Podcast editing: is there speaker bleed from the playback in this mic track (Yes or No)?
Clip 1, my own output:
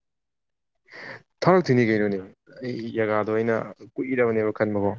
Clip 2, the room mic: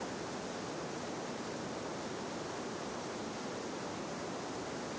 No